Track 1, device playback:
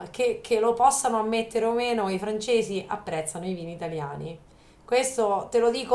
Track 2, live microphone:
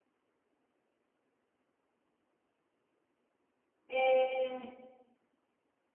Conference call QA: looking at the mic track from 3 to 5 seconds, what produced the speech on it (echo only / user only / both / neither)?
user only